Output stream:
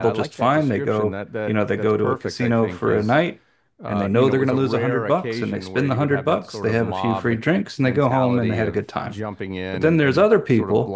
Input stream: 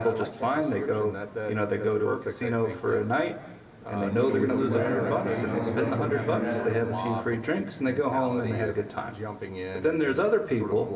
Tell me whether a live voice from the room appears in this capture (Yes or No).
Yes